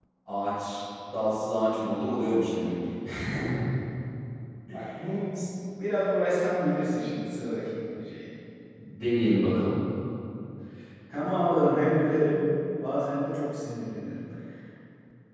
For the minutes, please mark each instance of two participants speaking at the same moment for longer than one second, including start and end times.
none

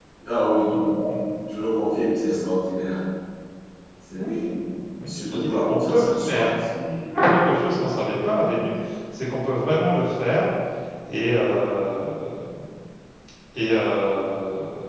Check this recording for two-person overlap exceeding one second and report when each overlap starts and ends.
5.1-6.5

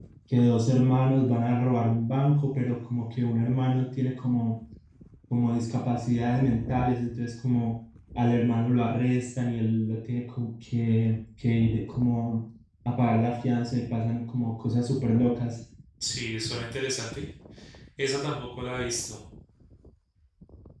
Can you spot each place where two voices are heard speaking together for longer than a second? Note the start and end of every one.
none

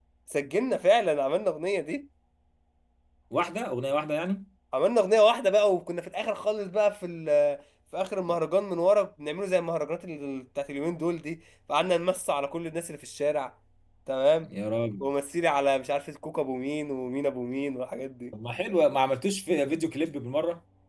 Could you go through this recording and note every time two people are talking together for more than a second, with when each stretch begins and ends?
none

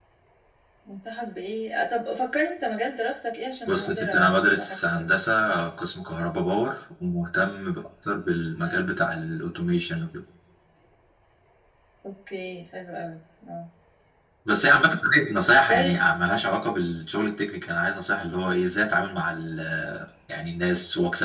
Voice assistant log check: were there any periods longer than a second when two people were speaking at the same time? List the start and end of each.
3.7-5.1

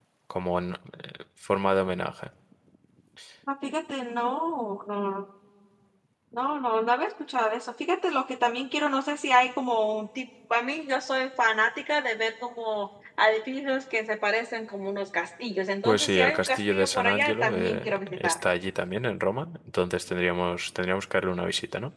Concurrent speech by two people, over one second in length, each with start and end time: 15.8-18.4

